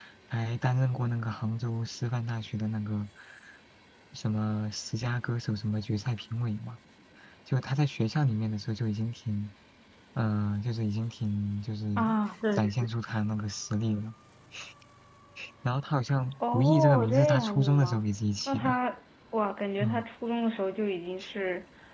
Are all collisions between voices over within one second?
No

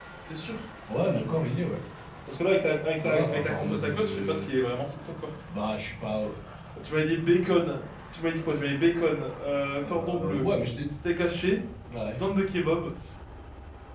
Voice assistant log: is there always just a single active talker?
No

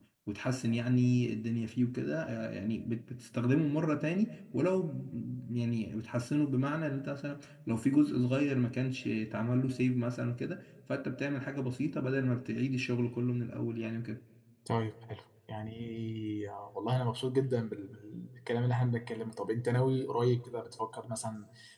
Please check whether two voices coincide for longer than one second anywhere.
No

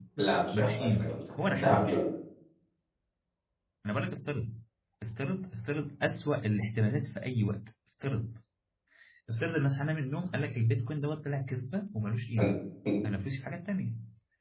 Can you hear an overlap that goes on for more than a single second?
Yes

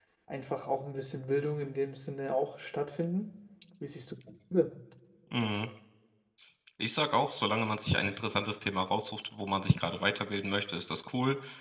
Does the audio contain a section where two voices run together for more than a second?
No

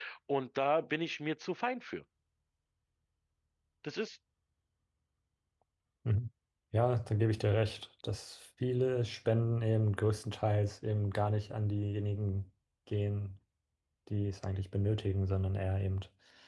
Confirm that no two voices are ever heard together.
Yes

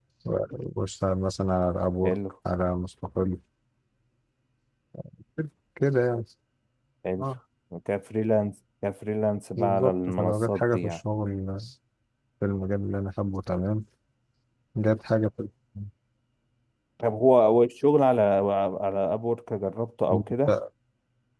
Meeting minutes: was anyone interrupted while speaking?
Yes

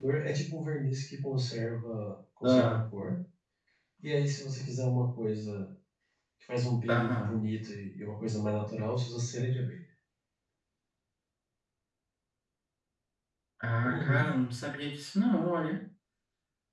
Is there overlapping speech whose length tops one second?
No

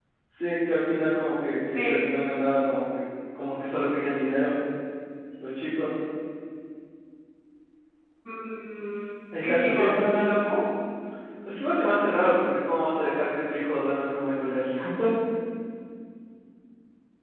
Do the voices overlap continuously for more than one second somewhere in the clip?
No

